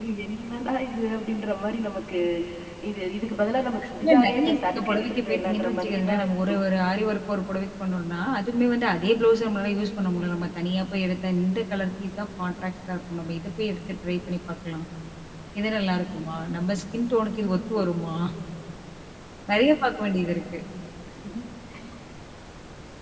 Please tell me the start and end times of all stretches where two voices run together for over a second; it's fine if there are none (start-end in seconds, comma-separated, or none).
4.0-6.6